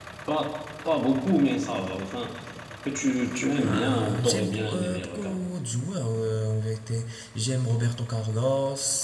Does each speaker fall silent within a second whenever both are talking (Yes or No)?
No